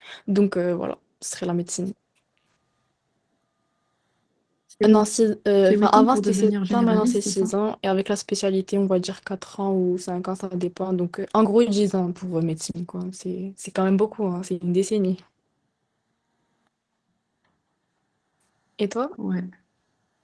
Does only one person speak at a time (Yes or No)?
No